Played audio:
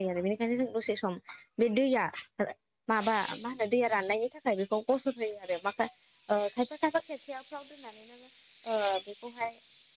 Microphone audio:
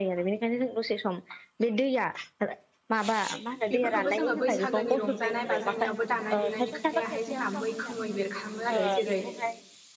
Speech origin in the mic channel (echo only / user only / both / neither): both